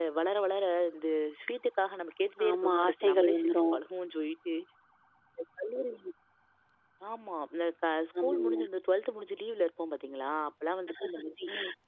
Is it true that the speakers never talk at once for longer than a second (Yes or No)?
No